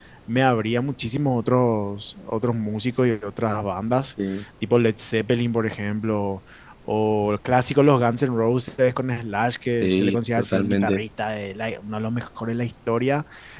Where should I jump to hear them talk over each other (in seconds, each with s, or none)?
9.8 s